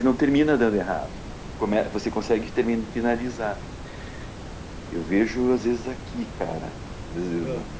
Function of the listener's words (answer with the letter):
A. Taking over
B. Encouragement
B